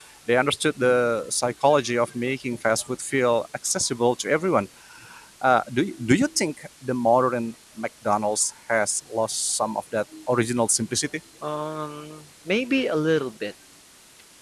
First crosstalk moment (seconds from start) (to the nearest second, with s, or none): none